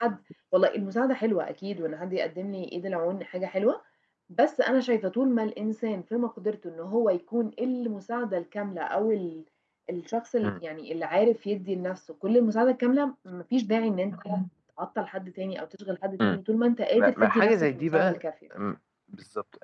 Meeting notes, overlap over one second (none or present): present